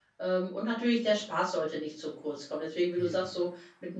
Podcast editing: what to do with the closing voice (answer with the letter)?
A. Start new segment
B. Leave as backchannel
B